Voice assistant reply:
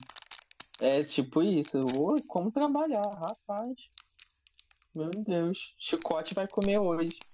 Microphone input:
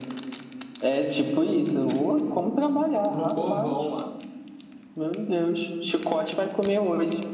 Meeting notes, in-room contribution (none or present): present